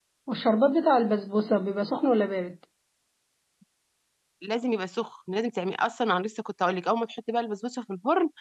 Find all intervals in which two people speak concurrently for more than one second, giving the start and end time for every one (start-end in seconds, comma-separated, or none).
none